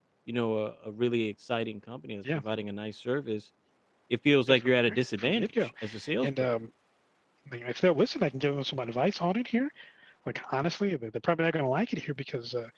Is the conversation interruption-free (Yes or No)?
No